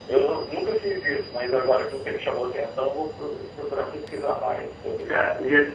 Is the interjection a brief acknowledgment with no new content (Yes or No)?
No